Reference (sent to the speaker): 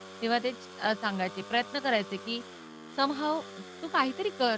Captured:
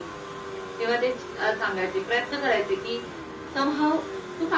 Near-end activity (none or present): none